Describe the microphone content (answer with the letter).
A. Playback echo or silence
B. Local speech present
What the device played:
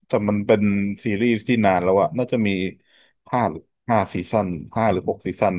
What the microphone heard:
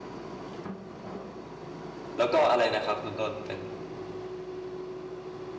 B